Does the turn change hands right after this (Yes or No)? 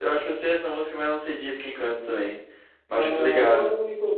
Yes